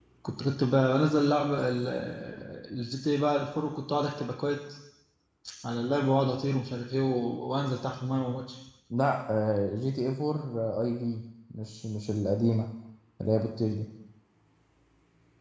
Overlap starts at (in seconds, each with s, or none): none